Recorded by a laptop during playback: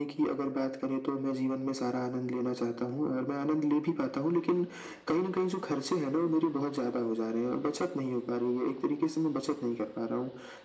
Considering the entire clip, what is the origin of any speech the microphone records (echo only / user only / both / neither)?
echo only